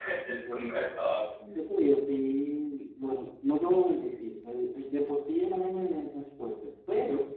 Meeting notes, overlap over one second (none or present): none